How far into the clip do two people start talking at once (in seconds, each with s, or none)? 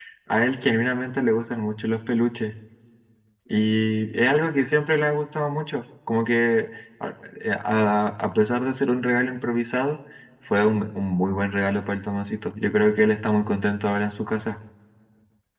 none